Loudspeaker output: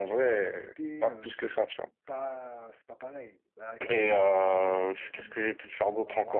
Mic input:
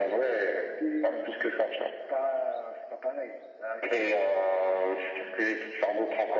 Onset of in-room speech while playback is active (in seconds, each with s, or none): none